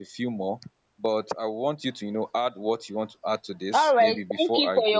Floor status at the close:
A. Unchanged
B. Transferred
B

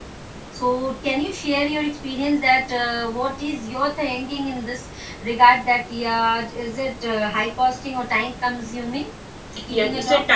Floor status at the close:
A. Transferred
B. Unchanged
A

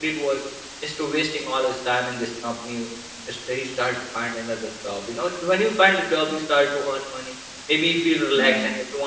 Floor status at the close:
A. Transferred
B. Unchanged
B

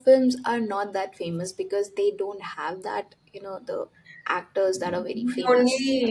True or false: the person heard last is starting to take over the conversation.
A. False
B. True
B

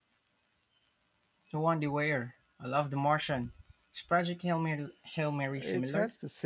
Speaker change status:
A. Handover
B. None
A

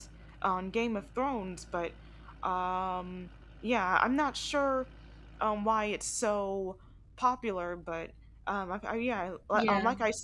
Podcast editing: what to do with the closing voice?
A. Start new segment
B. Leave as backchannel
B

